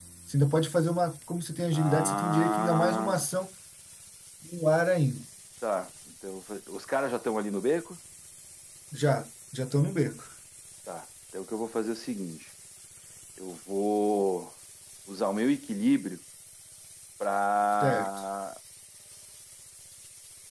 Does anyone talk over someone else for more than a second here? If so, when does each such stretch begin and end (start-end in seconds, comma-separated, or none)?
1.7-3.2